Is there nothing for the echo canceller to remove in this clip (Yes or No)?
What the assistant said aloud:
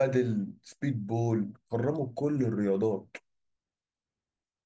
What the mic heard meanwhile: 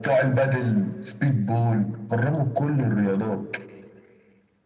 No